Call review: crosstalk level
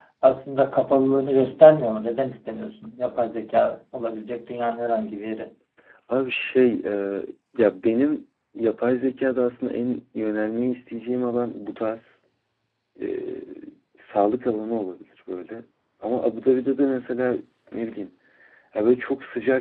none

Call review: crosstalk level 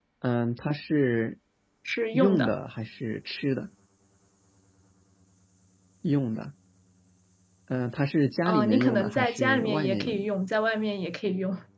present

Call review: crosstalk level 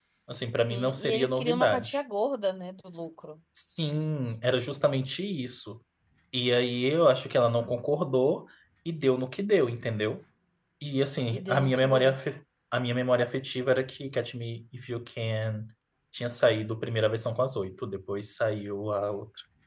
present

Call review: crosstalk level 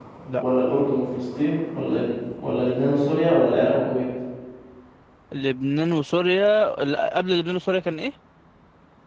none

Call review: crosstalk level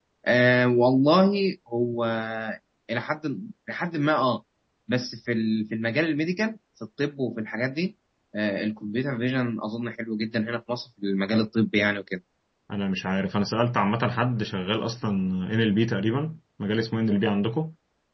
none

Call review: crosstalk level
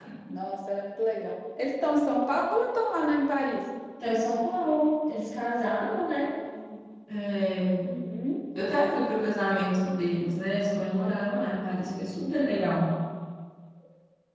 none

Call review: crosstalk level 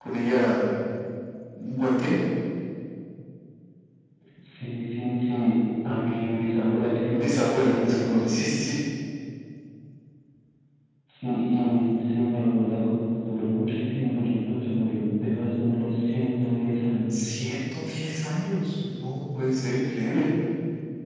present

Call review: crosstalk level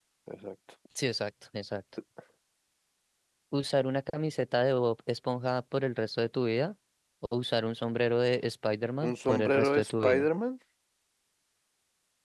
present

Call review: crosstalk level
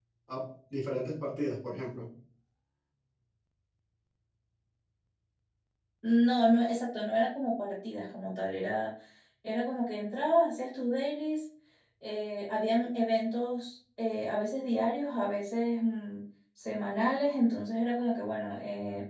none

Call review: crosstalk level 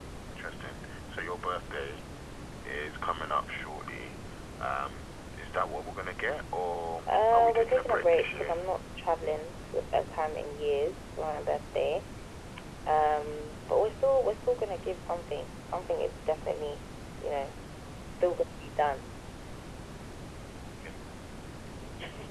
present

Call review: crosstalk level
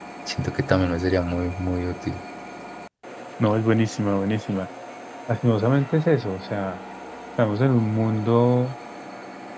none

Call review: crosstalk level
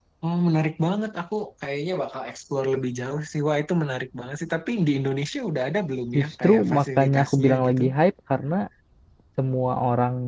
present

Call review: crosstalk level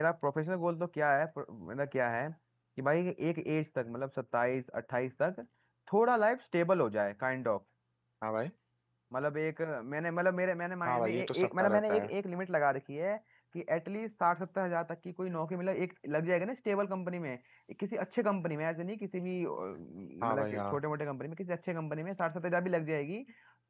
present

